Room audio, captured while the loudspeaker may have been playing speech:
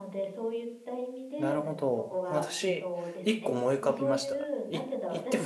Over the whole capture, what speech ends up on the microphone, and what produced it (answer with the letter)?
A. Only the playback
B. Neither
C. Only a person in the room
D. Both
D